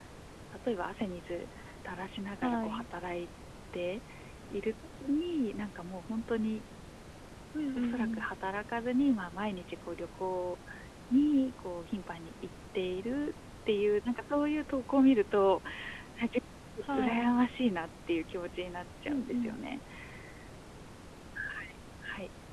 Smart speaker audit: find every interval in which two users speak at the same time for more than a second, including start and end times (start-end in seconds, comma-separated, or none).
none